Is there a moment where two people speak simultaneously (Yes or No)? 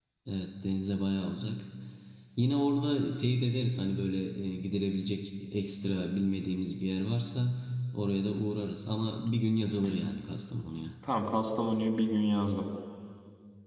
No